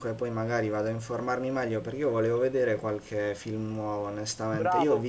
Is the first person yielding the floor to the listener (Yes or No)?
No